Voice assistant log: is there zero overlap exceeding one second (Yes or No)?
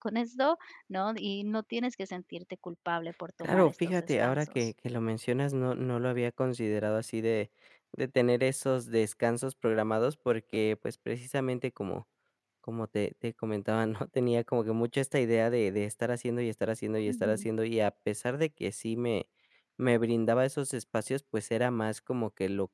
No